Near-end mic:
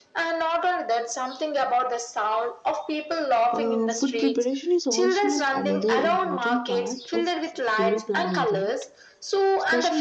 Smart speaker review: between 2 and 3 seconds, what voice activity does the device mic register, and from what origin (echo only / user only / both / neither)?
echo only